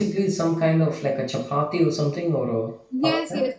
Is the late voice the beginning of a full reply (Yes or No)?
Yes